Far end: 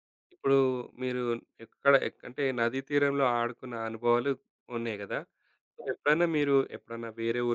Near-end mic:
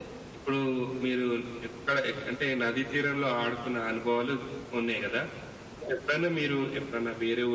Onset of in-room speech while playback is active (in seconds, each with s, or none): none